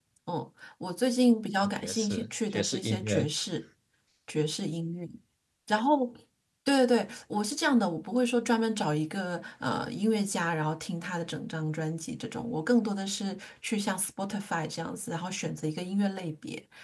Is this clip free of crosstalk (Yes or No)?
No